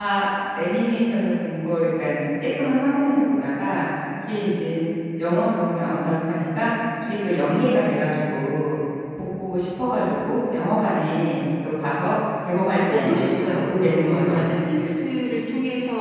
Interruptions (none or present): present